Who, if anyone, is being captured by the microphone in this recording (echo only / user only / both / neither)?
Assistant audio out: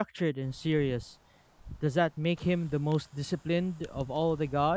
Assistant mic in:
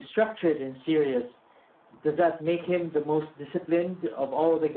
echo only